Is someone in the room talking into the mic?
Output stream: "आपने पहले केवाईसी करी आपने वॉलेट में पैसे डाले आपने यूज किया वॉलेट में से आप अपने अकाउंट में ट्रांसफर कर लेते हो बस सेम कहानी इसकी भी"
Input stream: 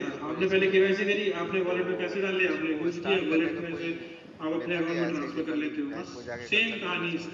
Yes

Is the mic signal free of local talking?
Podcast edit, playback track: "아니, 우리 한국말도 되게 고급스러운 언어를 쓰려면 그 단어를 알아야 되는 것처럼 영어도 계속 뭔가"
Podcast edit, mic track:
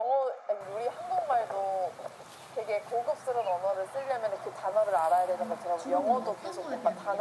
No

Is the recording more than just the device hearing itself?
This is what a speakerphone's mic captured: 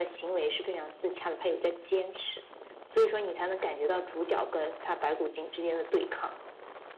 No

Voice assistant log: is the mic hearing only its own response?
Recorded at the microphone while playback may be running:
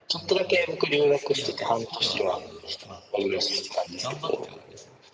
No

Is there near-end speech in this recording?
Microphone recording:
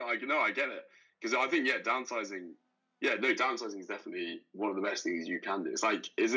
No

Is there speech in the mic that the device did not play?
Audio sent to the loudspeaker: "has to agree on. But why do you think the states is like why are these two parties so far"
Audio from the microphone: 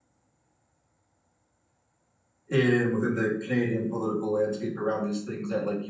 Yes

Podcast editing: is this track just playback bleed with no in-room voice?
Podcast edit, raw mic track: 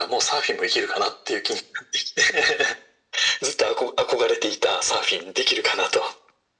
Yes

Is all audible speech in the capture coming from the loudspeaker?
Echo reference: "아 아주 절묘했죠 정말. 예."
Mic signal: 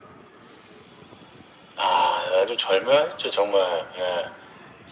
Yes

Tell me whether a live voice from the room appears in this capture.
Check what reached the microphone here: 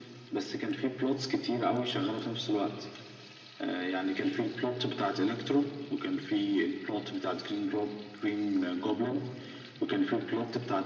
No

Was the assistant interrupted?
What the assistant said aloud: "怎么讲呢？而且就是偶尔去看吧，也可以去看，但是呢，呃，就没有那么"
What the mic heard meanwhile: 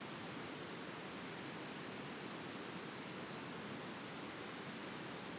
No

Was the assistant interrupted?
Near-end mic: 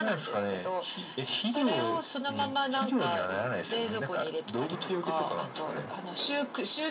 No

